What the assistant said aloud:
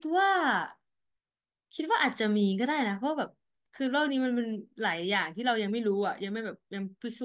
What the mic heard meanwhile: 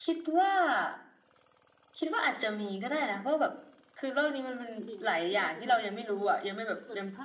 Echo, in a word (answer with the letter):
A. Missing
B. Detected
B